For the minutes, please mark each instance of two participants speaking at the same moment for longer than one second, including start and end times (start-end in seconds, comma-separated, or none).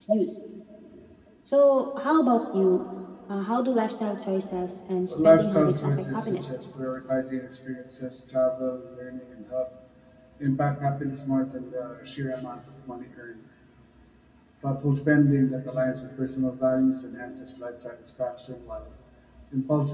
5.1-6.4